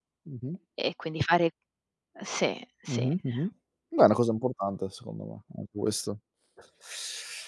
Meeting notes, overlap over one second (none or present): none